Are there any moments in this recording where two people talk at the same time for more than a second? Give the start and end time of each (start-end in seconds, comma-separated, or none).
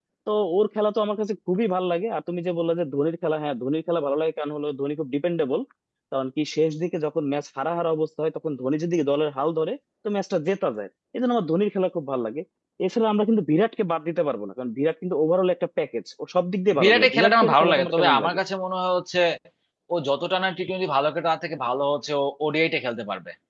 16.8-18.4